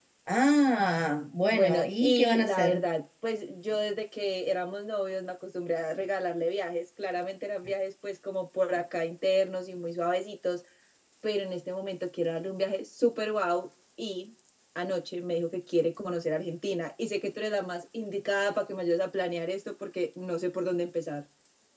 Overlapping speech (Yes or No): Yes